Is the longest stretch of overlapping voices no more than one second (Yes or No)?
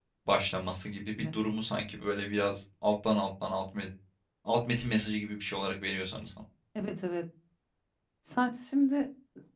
Yes